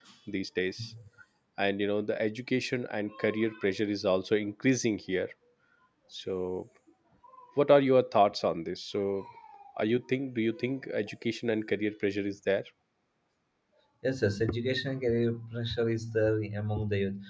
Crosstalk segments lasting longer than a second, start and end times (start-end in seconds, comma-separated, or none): none